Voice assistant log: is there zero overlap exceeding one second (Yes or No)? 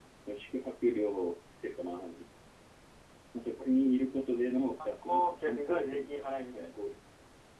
No